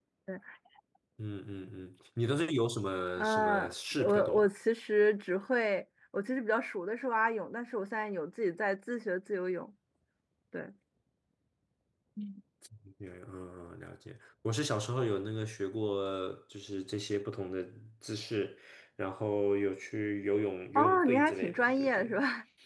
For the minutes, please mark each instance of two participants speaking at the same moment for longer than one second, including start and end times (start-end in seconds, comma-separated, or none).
3.2-4.5, 20.8-22.1